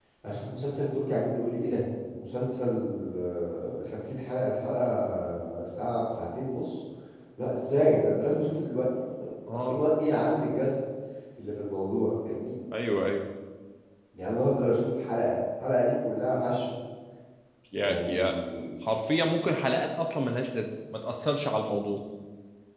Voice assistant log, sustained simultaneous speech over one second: none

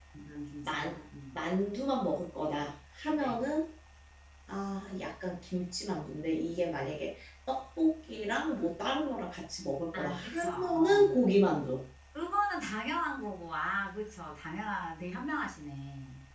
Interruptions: present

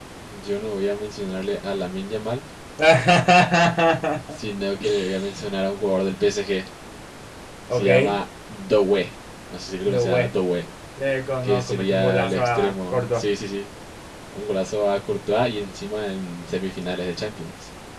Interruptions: present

